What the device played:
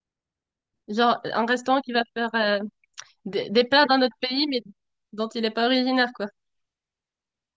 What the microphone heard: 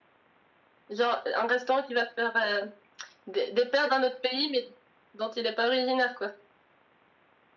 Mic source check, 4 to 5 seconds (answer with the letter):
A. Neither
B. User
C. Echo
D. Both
C